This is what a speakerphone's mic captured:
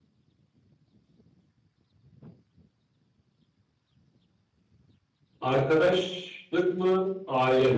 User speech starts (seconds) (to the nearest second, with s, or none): 5 s